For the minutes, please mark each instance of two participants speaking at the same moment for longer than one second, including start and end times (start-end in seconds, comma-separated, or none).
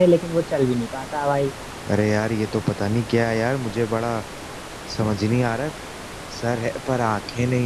none